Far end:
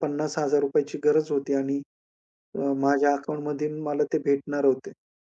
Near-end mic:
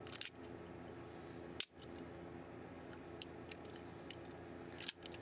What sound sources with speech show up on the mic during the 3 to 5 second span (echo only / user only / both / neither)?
neither